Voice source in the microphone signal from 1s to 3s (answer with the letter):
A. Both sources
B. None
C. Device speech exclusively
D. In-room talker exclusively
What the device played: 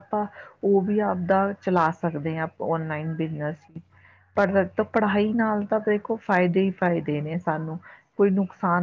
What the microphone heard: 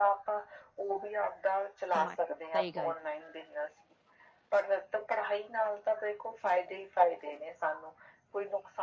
A